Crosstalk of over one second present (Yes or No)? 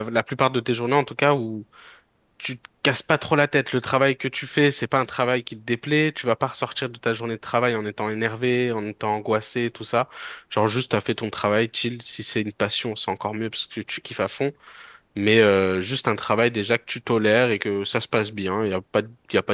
No